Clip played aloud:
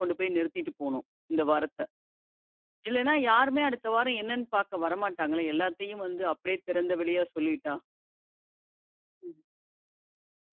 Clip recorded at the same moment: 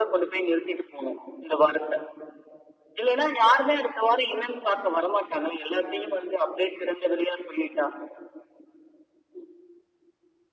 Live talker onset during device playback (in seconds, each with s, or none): none